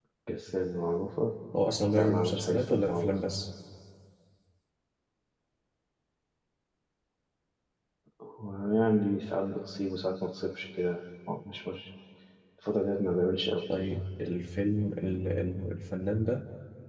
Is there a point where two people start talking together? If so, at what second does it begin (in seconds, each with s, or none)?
1.9 s